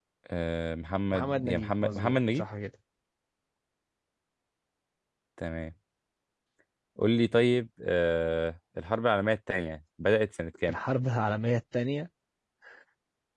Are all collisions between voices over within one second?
No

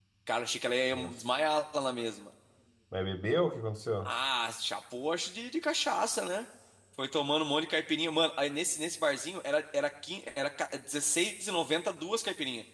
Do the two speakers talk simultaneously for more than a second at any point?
No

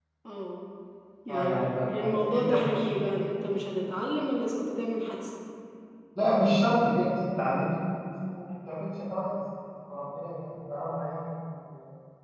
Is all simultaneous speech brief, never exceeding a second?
No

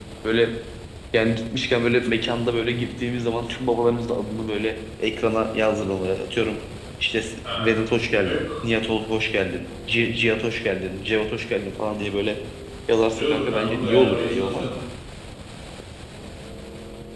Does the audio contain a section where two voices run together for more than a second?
Yes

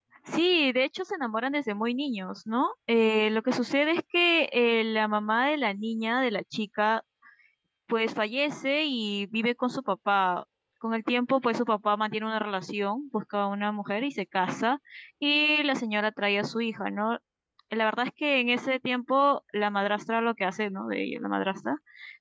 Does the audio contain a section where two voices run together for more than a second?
No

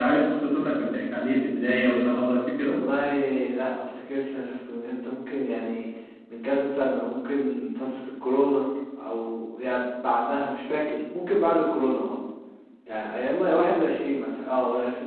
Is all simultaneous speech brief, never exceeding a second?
Yes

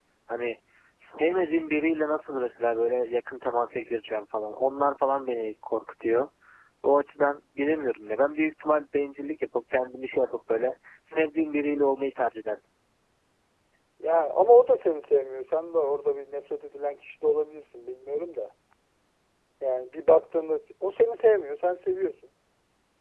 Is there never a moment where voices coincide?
Yes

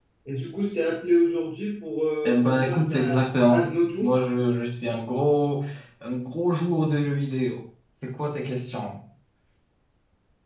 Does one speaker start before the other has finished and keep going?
Yes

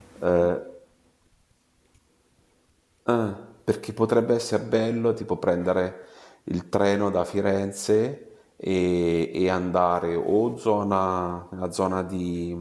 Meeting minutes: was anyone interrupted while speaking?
No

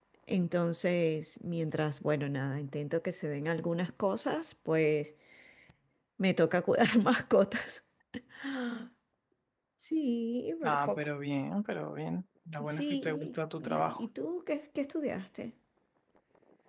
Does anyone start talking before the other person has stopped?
Yes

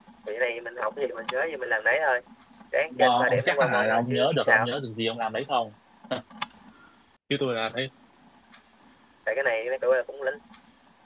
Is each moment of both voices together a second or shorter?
No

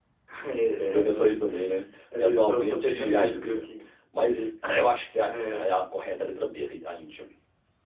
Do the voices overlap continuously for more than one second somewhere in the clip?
Yes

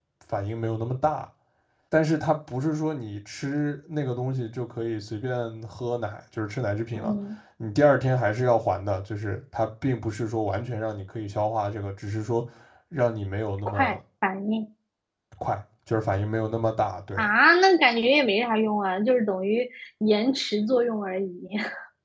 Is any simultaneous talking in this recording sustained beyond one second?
No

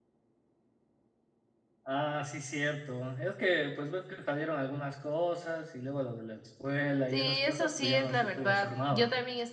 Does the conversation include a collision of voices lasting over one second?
Yes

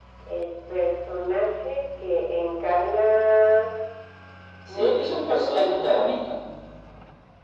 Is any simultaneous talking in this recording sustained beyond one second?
Yes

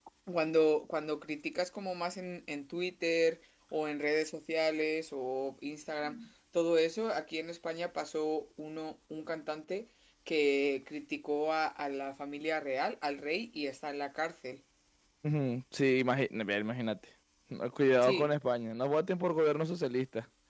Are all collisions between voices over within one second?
Yes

